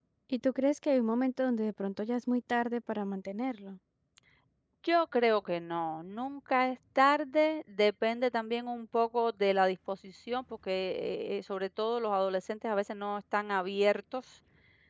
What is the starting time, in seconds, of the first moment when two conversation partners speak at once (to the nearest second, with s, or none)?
none